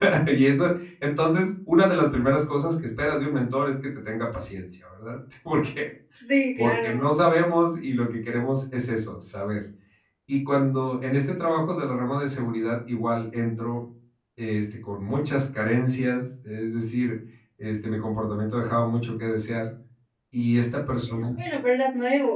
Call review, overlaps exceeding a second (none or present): none